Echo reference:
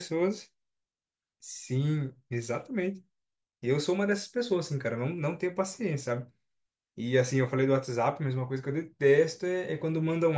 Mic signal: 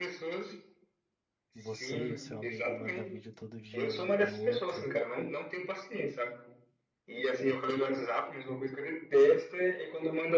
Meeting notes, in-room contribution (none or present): present